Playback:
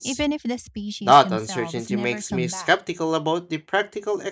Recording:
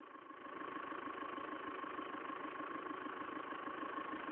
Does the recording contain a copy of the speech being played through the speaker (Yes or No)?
No